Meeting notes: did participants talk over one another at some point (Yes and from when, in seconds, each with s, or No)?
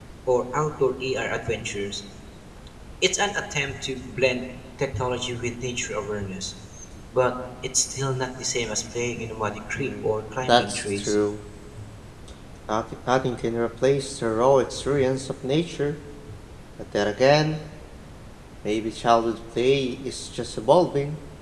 Yes, from 9.8 s